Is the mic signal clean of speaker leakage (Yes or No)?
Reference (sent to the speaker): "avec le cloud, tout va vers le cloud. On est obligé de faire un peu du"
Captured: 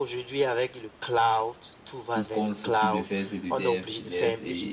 No